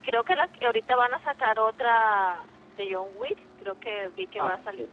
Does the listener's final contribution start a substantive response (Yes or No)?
Yes